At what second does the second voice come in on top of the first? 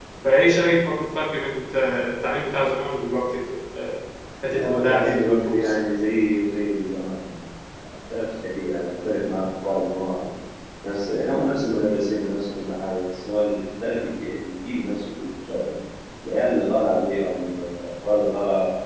5 s

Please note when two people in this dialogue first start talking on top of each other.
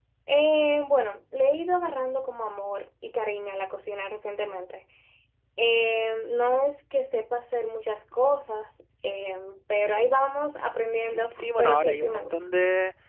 11 s

